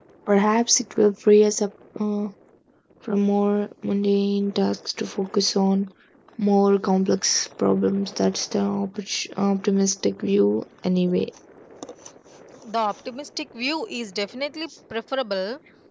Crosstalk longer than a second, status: none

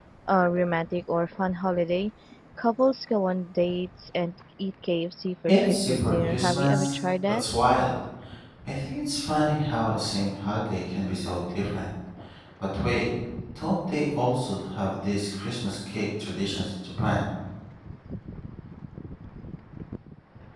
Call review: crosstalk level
present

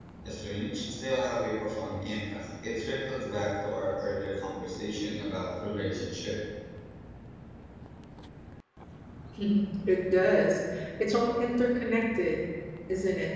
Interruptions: none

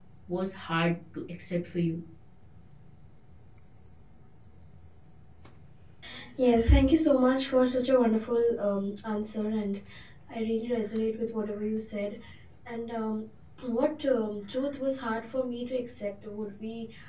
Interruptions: none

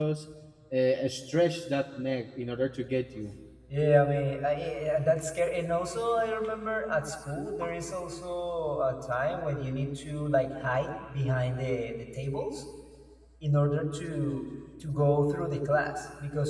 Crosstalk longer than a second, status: none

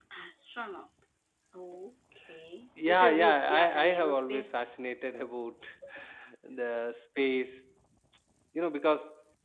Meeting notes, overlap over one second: present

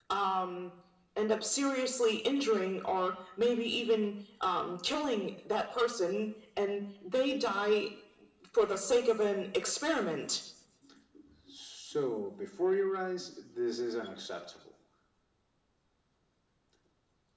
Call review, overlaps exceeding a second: none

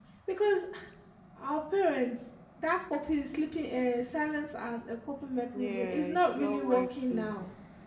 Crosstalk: present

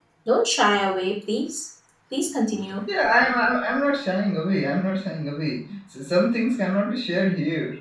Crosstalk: none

